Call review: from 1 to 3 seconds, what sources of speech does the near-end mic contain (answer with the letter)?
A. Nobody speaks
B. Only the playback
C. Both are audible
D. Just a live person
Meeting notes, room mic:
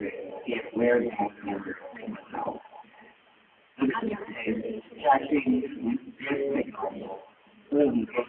B